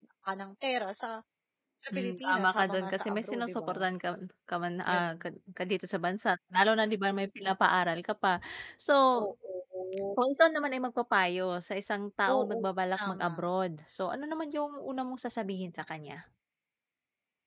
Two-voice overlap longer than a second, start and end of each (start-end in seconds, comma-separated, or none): 1.9-3.7